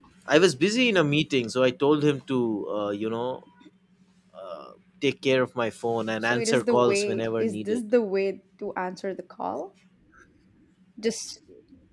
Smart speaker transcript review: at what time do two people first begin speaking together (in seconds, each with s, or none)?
6.3 s